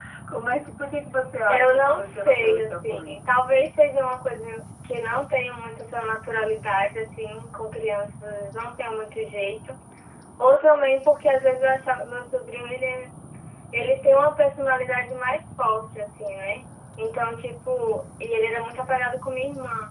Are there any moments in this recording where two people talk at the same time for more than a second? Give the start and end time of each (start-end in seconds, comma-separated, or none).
1.5-3.2